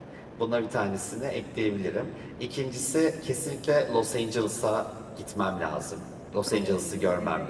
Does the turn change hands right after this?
Yes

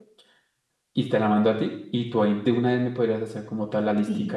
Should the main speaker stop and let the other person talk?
Yes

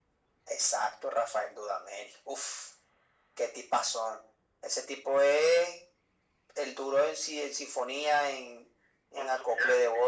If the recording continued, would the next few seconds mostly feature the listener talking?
No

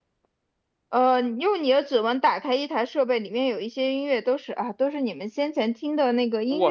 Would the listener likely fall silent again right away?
No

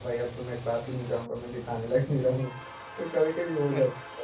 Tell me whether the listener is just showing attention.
Yes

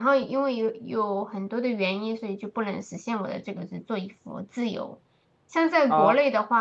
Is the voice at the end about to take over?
No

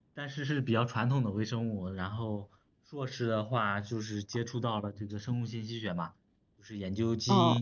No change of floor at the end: No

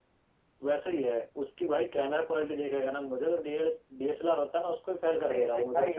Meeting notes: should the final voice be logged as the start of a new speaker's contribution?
Yes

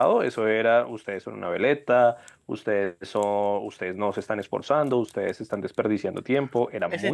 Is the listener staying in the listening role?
No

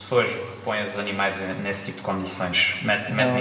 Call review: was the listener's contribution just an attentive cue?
Yes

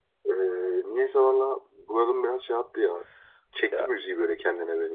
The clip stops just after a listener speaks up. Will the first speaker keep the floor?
No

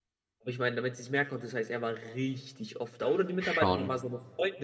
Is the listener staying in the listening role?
Yes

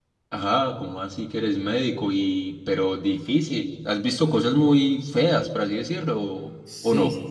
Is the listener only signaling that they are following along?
No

